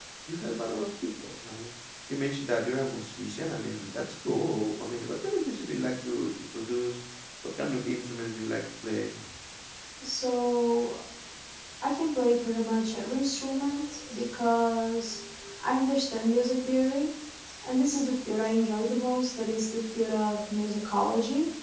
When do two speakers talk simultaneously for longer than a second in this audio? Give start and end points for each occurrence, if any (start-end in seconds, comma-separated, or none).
none